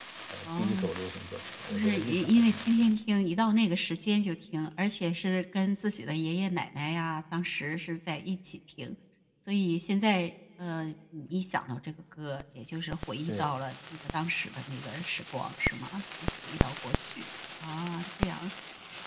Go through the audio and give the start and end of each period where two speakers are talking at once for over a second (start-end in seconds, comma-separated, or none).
1.7-2.9